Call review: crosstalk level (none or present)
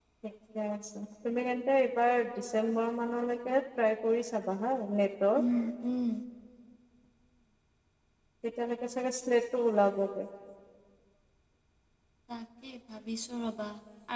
none